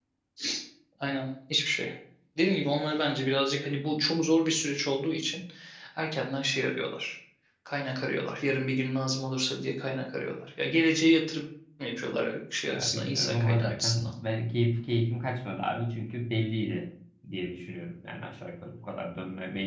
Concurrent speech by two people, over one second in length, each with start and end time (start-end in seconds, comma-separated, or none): 12.6-14.1